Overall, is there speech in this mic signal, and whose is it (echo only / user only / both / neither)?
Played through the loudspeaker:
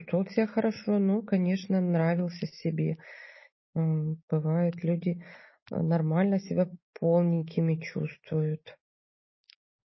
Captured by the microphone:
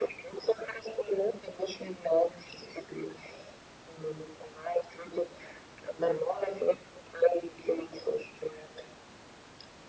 echo only